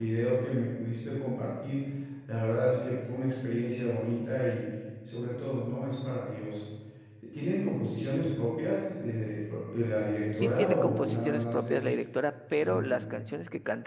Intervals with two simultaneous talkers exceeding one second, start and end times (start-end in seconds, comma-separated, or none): 10.4-11.9